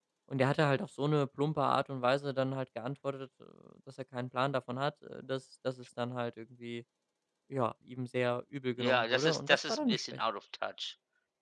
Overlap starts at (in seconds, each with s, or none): 8.8 s